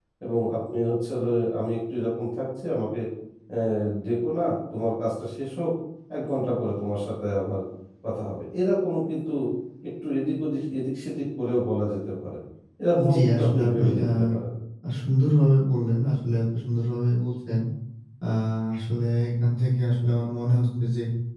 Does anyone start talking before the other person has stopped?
Yes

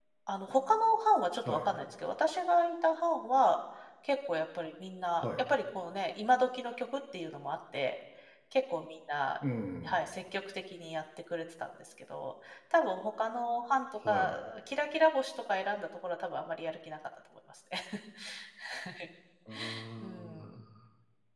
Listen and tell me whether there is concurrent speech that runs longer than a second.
No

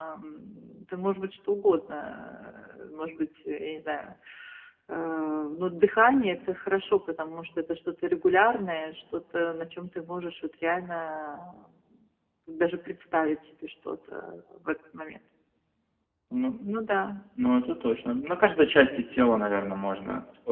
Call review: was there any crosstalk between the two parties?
No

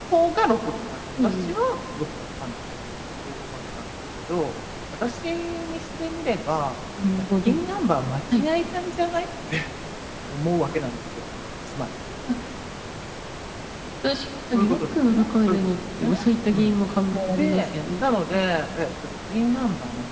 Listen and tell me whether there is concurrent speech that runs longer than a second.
Yes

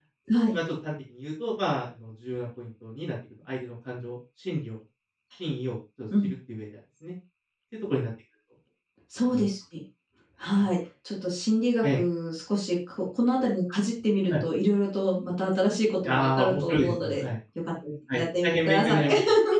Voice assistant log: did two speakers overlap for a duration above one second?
Yes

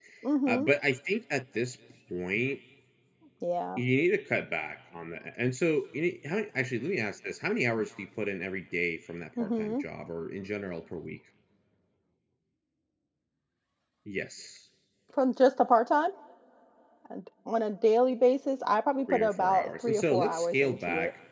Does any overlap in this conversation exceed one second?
Yes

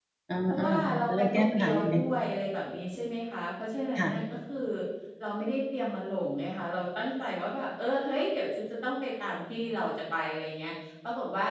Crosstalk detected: Yes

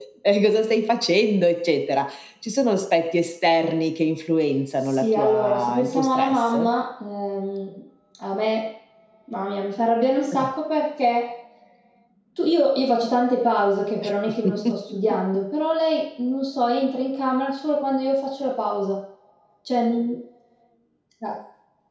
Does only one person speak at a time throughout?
No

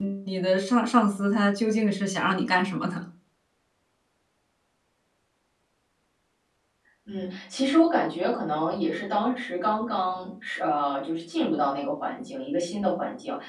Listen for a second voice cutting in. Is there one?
No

